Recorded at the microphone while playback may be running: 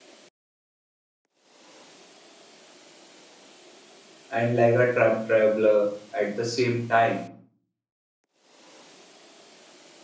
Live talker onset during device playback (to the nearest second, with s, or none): 4 s